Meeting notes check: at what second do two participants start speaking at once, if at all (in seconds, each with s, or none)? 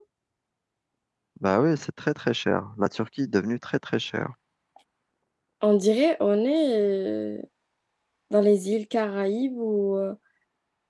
none